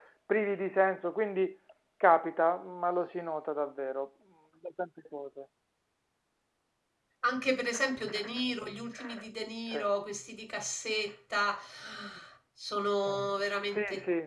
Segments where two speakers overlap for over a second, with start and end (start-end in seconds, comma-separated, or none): none